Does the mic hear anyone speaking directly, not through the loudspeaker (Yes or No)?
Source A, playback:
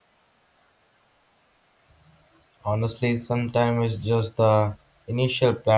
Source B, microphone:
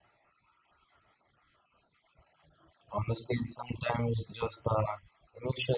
No